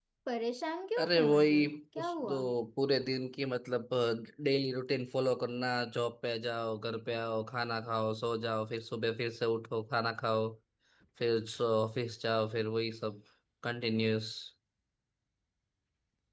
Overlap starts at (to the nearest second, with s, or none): 1 s